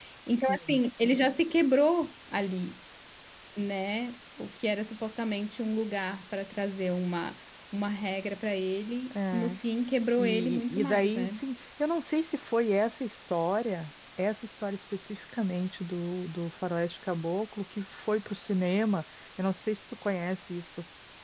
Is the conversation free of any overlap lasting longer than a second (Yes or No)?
No